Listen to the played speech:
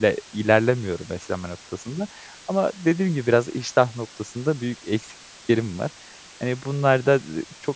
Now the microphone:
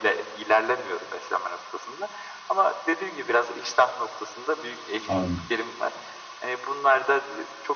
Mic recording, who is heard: both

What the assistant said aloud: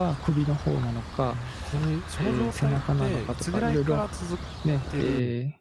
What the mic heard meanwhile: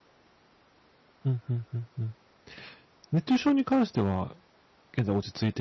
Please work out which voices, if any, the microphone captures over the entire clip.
user only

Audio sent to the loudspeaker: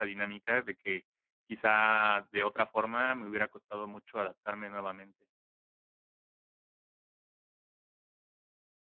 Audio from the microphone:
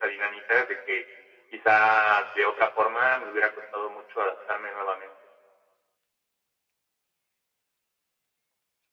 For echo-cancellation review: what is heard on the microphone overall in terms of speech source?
echo only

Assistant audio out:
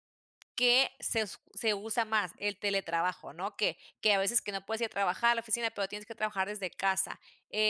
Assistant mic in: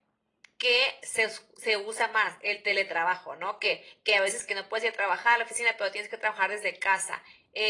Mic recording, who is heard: echo only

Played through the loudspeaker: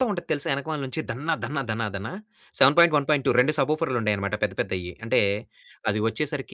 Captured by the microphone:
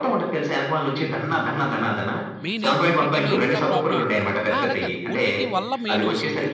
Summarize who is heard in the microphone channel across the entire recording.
both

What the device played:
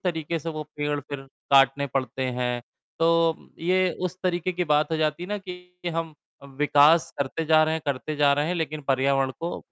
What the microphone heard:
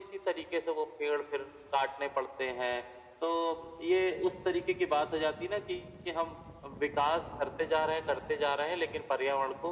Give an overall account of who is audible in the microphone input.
echo only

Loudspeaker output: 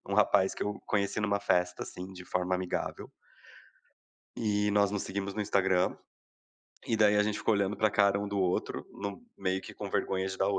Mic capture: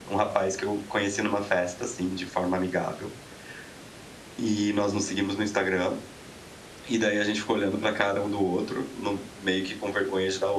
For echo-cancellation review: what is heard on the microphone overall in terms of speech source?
echo only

